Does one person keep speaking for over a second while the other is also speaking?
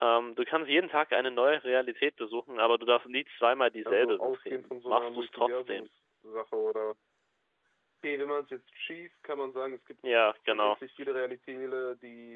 Yes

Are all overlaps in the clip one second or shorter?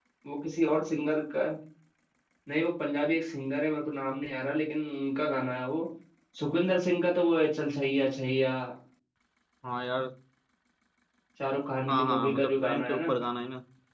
No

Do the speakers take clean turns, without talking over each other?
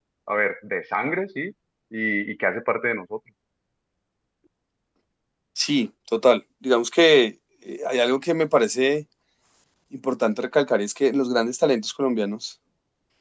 Yes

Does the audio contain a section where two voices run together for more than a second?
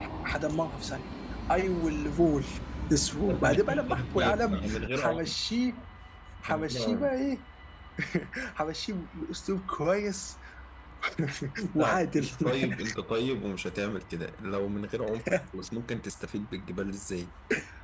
Yes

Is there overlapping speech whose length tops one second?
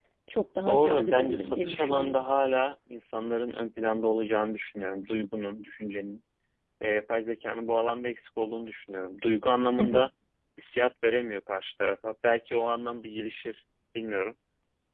Yes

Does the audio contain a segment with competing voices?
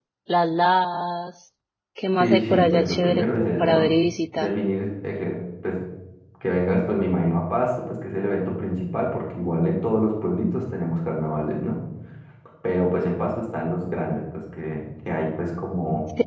Yes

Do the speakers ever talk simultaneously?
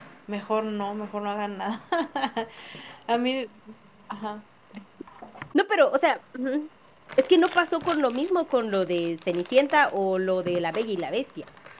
No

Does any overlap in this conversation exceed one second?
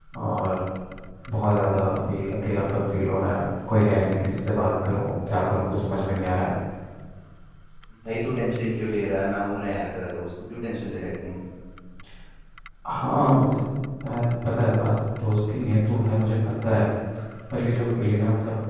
No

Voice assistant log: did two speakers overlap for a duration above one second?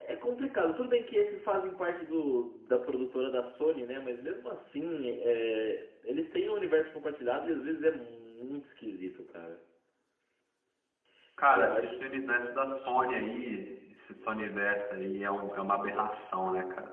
No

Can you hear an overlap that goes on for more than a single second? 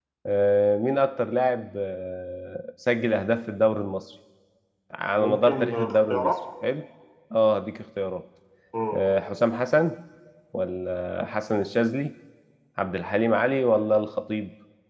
Yes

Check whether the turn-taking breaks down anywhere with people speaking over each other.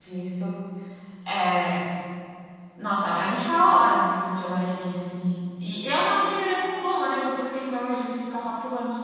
No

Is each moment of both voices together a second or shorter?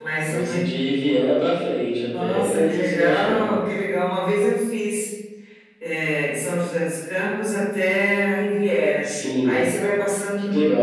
No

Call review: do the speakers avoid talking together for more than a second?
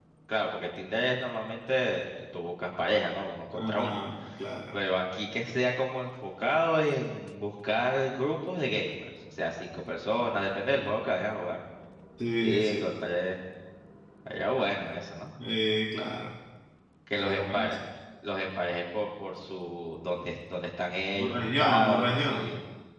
No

